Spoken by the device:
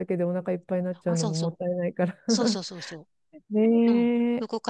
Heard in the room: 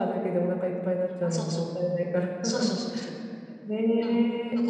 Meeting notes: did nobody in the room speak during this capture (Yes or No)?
Yes